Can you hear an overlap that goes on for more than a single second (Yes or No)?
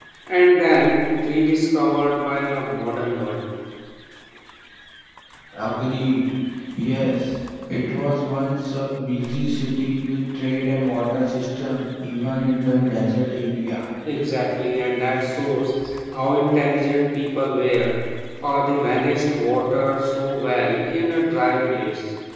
No